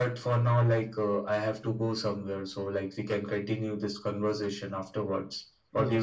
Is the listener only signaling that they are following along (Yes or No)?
No